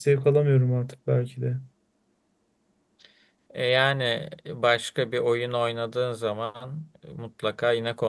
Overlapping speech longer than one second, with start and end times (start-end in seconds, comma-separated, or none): none